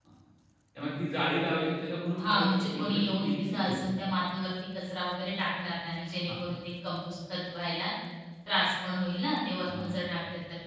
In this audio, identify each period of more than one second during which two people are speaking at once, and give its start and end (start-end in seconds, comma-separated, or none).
2.2-3.8